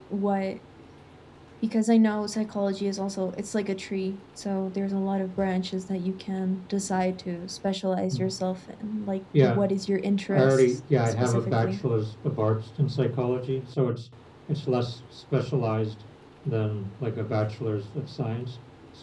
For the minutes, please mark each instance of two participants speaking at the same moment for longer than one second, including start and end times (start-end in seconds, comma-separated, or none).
10.3-11.8